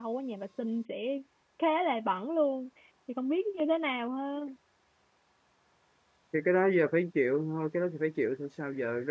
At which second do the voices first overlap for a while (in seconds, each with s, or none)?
none